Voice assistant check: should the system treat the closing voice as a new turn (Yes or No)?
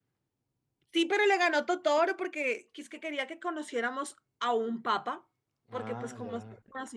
No